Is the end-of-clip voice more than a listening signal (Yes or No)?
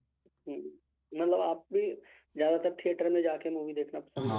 Yes